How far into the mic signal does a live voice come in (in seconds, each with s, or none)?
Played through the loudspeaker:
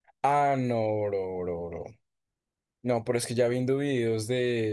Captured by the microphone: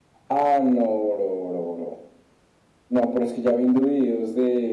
none